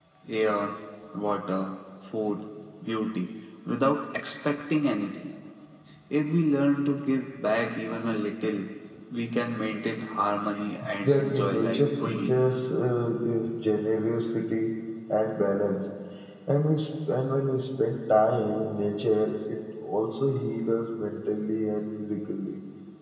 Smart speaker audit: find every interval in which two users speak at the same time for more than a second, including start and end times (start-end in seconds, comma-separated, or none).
10.9-12.3